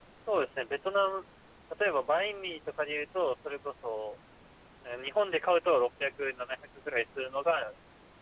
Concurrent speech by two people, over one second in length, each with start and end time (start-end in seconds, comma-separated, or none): none